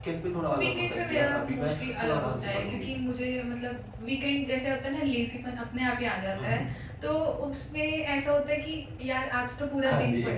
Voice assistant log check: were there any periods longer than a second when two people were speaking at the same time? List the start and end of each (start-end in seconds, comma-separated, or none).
0.6-2.9